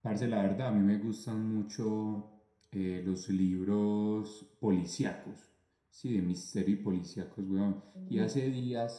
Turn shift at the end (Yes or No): No